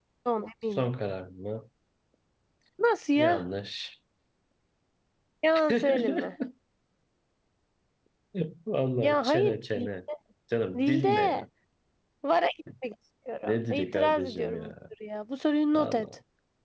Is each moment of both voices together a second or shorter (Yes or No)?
No